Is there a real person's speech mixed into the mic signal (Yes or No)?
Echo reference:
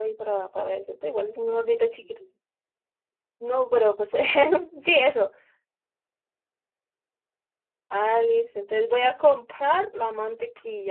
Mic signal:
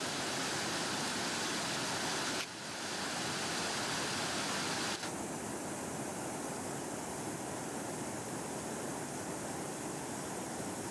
No